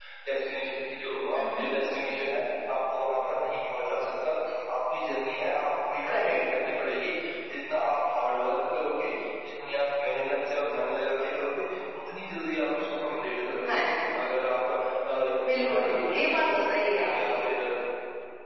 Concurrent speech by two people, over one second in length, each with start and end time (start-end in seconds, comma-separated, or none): 15.4-16.6